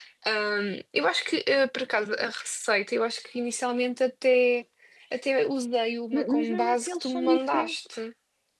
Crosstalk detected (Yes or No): Yes